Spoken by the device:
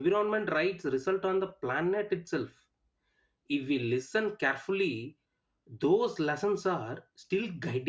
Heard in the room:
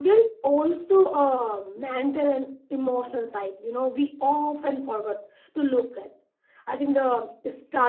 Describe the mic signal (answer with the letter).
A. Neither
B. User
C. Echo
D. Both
B